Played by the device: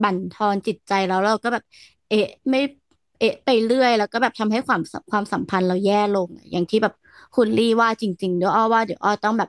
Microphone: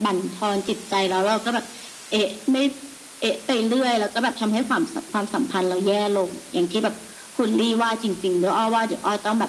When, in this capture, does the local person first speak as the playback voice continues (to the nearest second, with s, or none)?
none